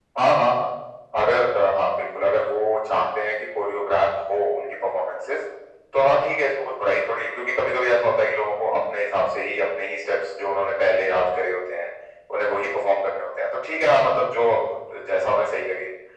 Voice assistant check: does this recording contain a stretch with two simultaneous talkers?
No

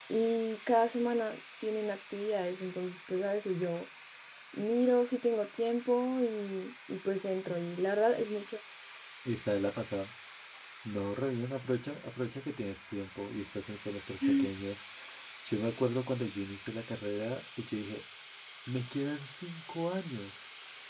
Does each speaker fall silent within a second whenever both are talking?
Yes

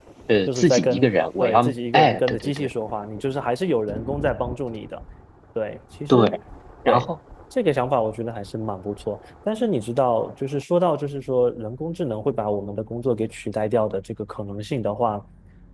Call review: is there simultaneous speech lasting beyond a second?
Yes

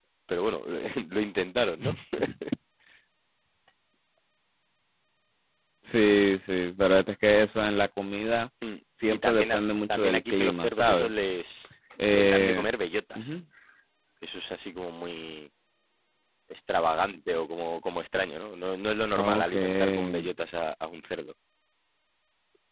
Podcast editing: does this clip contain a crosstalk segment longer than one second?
Yes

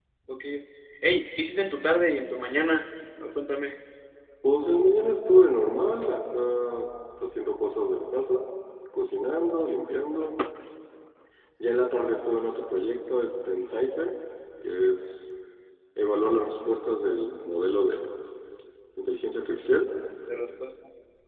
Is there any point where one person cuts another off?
No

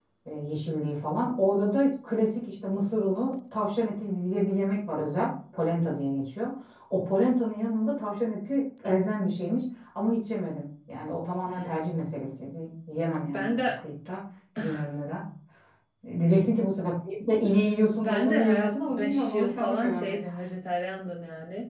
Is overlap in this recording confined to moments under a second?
No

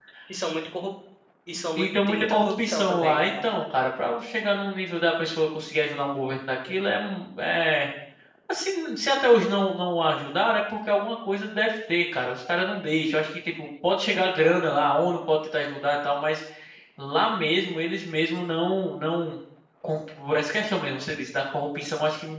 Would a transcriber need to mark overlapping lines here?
Yes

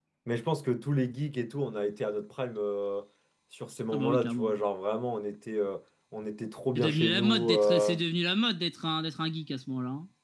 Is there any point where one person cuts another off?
Yes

